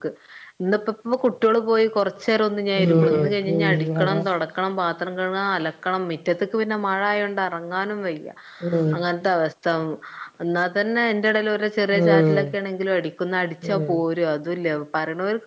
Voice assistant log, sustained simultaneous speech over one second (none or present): present